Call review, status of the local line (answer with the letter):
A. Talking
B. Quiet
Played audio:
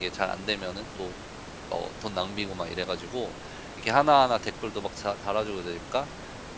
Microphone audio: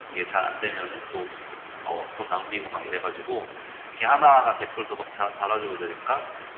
B